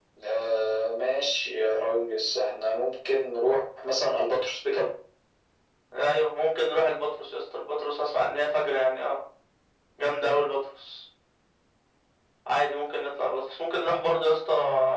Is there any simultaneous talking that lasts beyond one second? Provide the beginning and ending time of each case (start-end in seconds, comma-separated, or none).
none